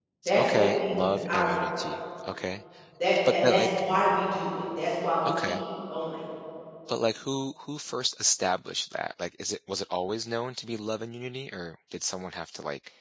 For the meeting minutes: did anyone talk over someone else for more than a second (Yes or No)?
Yes